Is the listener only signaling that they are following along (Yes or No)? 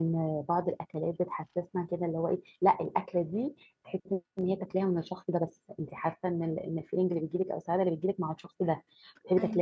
Yes